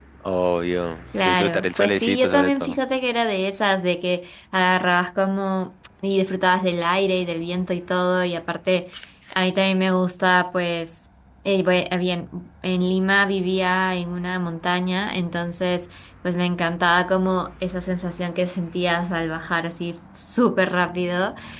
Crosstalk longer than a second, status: present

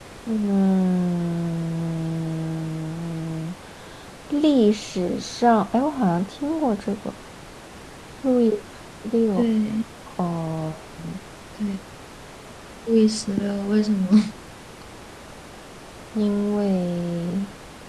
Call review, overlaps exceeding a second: none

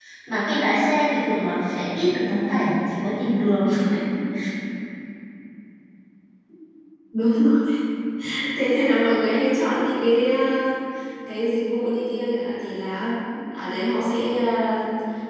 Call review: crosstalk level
none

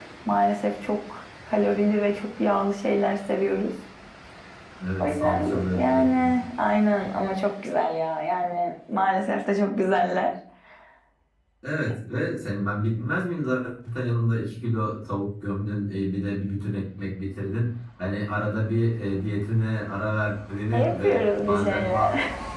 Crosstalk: present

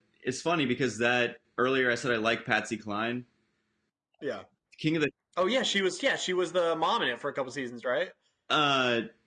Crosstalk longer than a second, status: none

